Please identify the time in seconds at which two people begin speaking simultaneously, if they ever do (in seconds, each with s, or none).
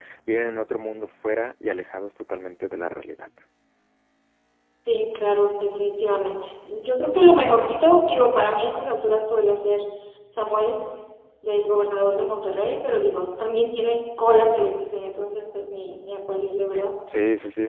none